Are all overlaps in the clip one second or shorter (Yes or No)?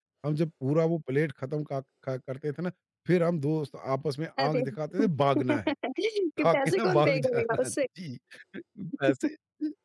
No